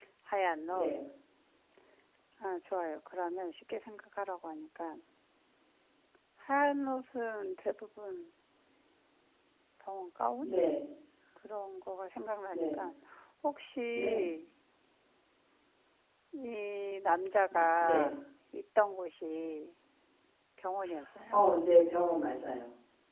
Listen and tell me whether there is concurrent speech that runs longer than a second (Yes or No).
No